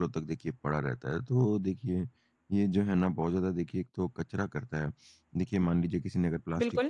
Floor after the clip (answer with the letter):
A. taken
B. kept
B